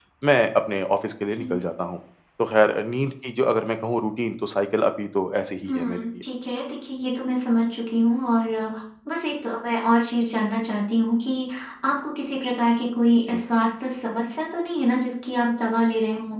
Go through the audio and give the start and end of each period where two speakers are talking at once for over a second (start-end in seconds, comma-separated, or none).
none